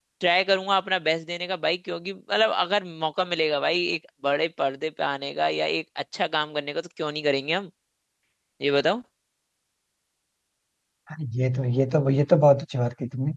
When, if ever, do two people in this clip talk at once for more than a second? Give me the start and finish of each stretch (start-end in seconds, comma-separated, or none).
none